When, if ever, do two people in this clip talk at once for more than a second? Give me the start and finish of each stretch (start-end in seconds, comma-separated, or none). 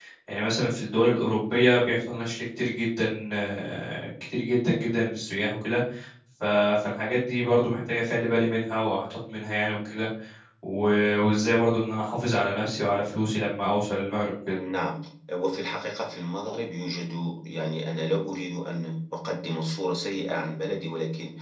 none